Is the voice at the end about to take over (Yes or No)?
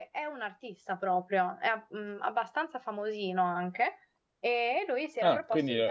Yes